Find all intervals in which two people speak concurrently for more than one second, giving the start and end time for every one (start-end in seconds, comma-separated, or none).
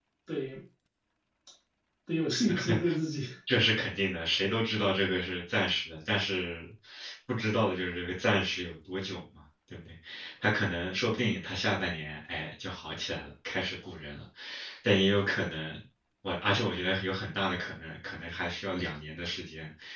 none